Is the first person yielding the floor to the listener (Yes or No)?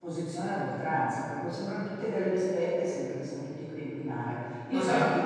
No